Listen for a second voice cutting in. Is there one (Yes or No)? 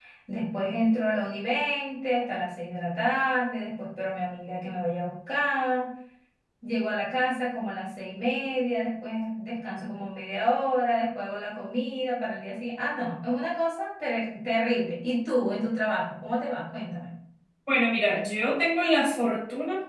No